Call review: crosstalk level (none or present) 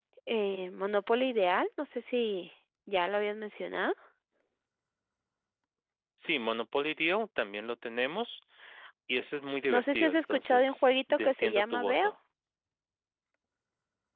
present